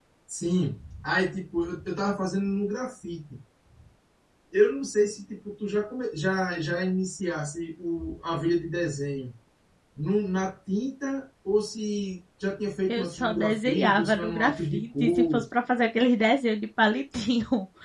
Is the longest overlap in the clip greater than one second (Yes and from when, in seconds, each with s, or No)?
Yes, from 12.9 s